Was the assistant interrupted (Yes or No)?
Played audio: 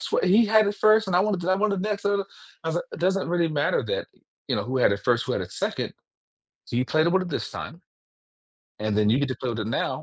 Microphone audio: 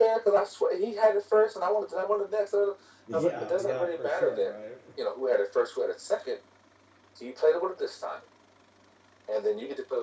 Yes